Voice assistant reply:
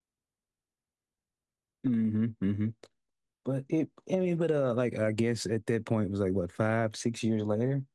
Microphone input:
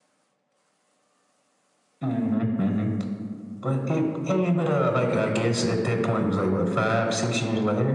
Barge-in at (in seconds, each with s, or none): none